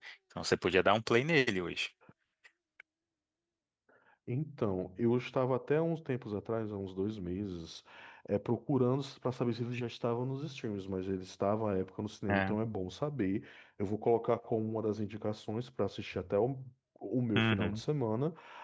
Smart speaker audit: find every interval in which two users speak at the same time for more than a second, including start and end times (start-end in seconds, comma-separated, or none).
none